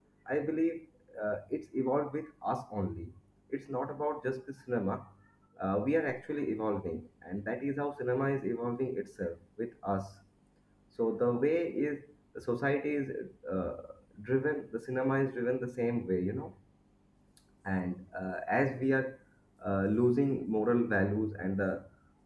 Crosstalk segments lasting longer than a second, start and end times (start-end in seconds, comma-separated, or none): none